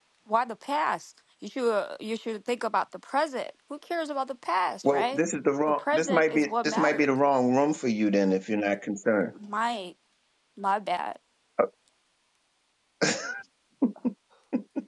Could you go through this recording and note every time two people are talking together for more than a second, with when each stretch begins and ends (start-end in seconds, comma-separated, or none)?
5.7-7.1